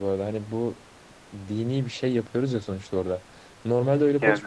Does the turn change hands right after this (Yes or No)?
No